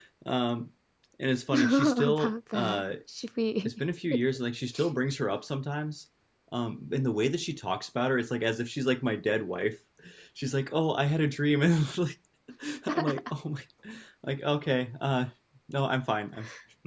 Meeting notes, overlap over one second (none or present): present